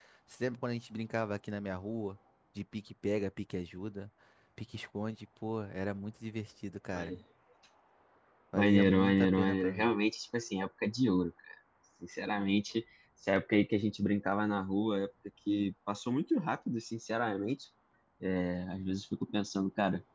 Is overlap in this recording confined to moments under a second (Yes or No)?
No